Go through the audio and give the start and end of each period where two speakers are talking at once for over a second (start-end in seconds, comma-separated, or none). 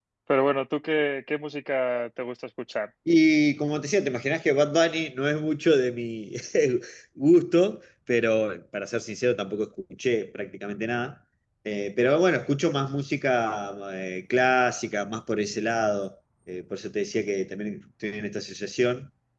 none